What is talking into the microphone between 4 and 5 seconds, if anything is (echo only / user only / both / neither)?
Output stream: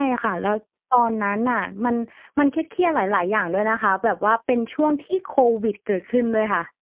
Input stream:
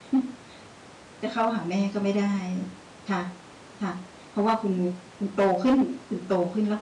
user only